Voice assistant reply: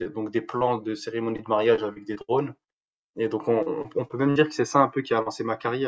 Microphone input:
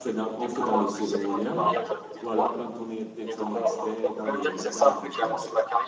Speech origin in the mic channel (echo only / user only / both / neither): both